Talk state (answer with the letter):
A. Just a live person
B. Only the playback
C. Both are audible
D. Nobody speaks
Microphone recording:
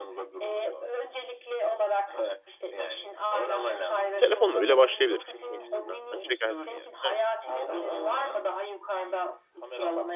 C